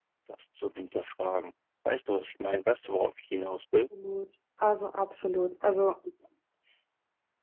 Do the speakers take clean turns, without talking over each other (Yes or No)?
Yes